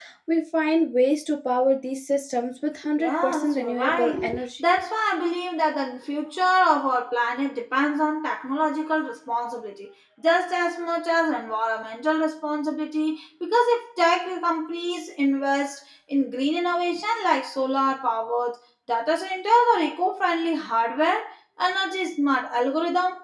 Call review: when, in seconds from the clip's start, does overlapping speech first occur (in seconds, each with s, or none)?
3.0 s